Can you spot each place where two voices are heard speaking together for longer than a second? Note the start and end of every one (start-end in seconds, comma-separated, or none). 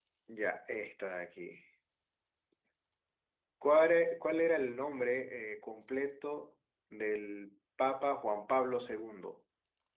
none